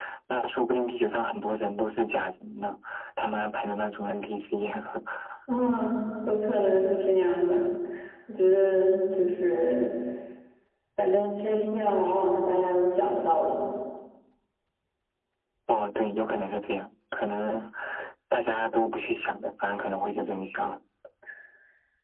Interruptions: none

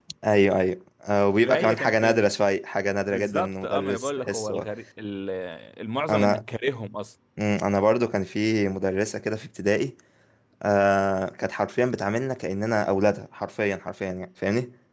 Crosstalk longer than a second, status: present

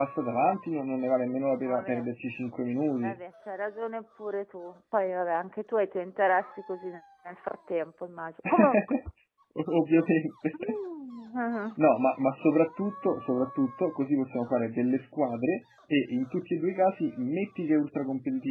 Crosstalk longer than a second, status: none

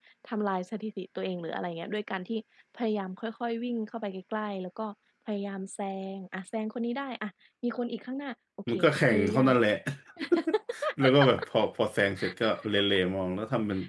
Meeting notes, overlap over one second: none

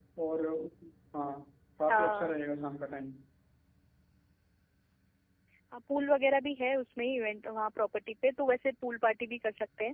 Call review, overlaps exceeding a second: none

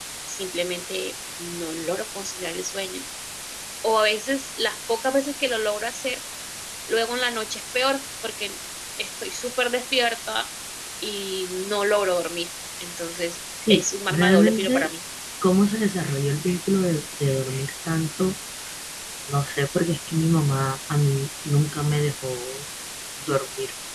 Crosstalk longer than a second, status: present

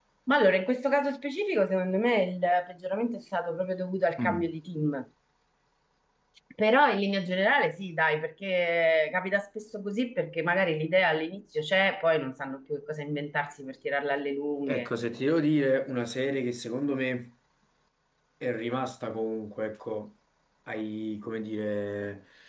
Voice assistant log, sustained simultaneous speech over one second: none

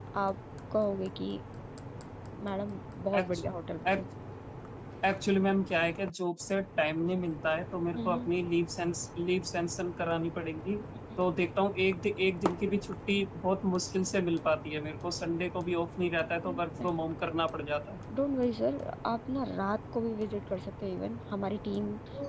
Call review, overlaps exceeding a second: none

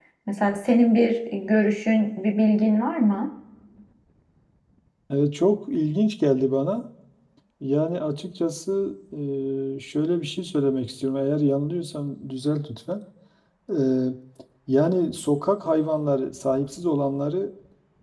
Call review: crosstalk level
none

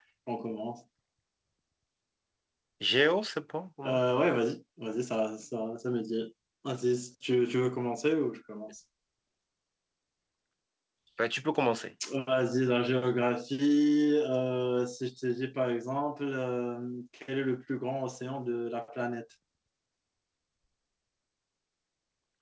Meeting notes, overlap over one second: none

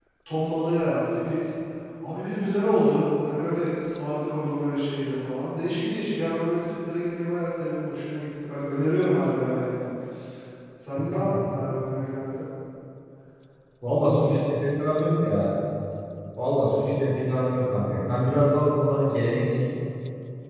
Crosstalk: none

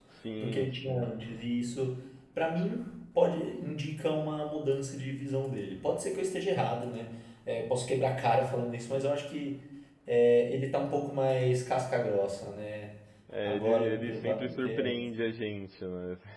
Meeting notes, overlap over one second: present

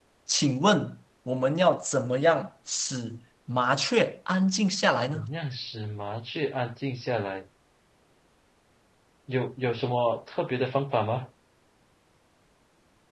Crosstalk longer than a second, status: none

